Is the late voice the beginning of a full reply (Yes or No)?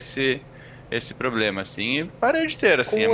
Yes